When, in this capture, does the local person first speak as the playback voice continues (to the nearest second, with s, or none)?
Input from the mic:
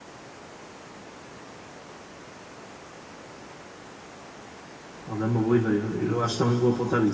5 s